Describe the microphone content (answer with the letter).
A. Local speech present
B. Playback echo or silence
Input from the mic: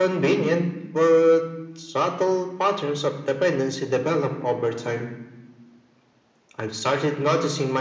B